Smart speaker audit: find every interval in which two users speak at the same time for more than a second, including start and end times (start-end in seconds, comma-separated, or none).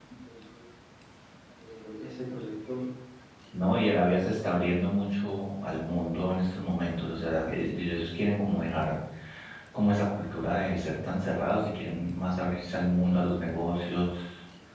none